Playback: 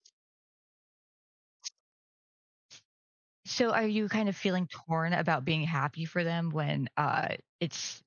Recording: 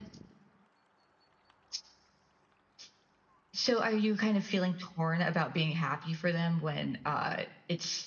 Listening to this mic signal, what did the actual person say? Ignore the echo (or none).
none